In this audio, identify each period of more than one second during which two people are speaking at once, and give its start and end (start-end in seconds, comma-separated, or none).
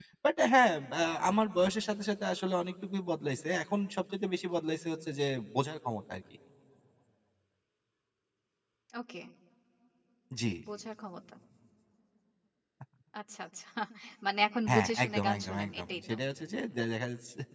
14.7-16.1